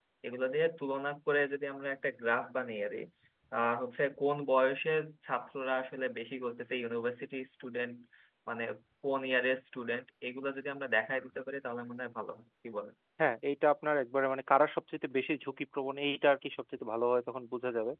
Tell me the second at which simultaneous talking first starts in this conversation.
none

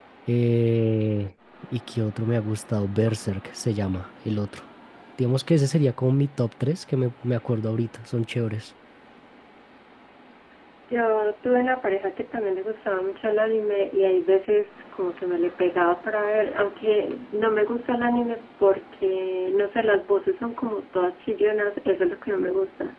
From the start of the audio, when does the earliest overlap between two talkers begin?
none

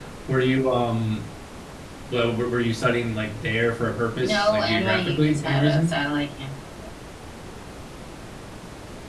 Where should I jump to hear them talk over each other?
4.2 s

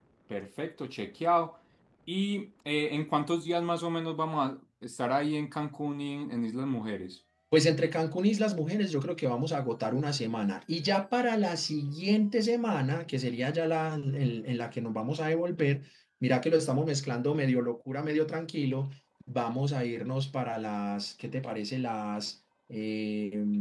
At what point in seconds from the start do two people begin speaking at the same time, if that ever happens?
none

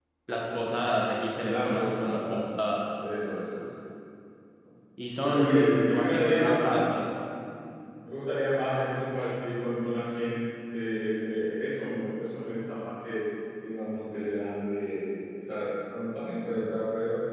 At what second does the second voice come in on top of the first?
1.4 s

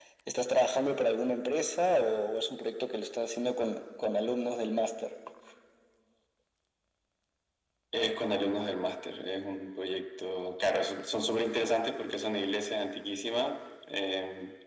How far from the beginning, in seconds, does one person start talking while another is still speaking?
none

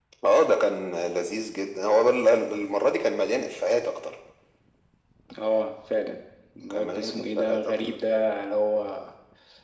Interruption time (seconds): 6.7 s

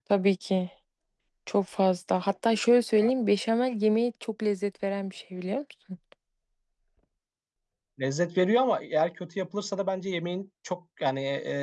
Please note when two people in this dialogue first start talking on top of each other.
none

